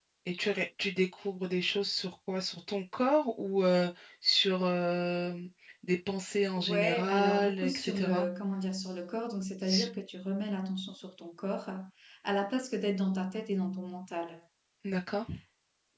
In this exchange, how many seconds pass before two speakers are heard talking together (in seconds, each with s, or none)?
6.6 s